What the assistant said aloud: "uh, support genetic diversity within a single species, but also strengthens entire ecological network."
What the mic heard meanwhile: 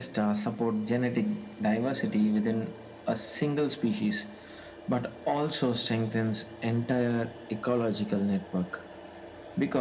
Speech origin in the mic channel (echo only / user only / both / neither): echo only